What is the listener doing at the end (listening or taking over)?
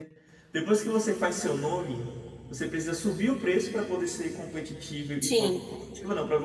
listening